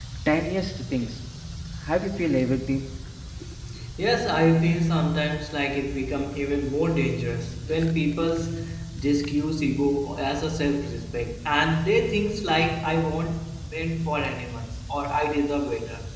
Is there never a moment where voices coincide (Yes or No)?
Yes